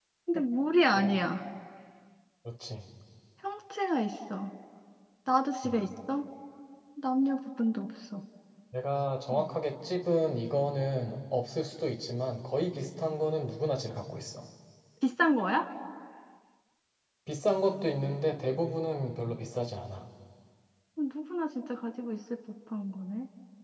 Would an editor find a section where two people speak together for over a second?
No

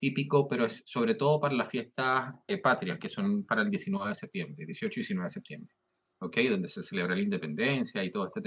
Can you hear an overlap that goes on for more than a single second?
No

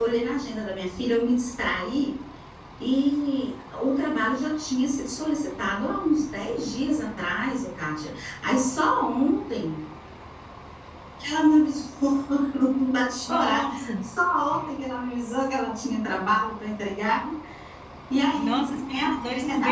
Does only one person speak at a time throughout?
No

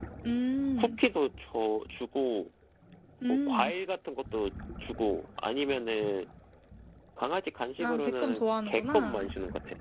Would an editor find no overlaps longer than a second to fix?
No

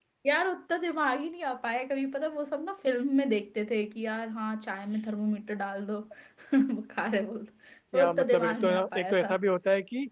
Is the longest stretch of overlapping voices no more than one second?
No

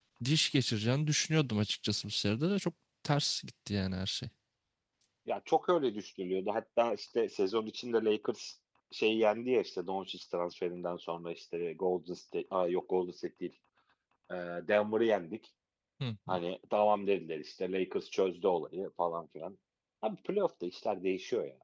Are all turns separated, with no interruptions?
Yes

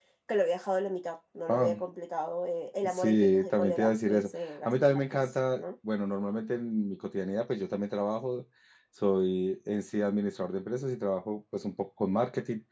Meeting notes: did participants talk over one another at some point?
Yes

